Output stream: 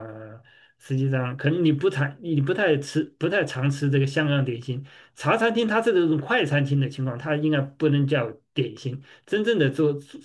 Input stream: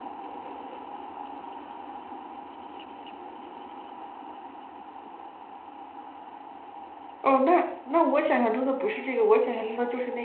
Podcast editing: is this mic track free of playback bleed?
Yes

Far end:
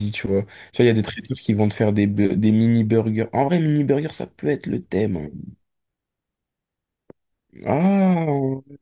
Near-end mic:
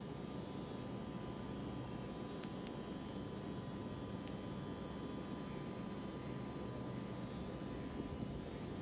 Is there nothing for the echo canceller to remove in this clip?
Yes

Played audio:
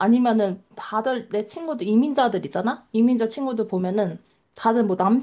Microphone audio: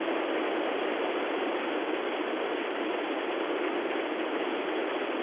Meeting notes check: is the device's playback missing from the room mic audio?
Yes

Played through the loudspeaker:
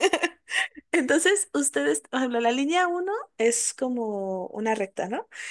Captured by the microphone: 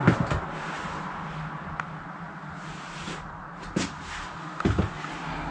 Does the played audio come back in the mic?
No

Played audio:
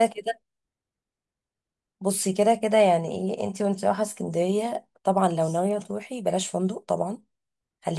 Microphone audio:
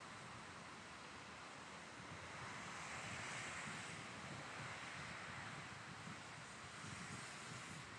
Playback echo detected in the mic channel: No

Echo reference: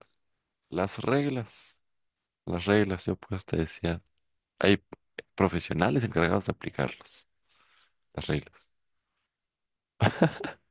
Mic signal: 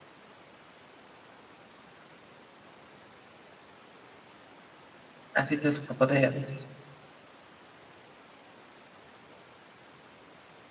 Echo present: No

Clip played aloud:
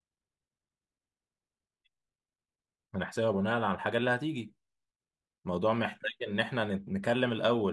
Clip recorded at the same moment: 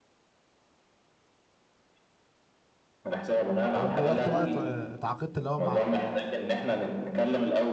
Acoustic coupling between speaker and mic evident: Yes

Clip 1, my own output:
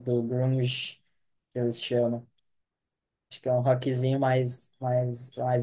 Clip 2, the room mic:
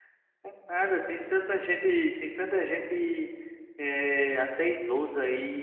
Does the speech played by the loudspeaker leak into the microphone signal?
No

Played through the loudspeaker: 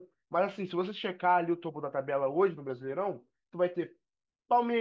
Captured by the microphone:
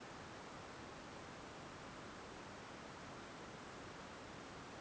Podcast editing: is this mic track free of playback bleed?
Yes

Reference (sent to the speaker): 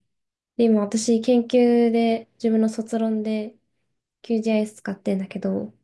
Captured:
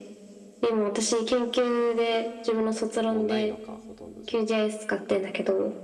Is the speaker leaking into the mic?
Yes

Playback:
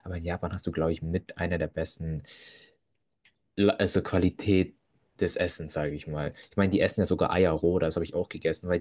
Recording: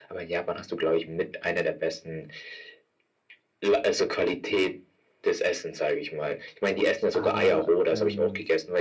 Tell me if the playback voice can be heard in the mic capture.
Yes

